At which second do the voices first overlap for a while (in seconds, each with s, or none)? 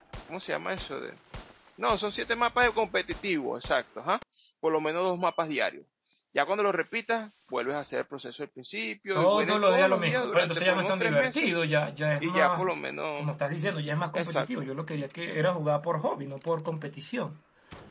9.2 s